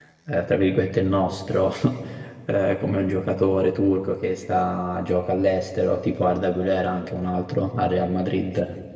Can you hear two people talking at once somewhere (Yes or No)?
No